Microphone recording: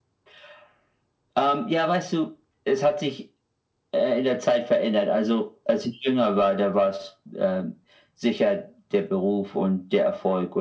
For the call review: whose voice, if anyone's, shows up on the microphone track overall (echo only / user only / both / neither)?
echo only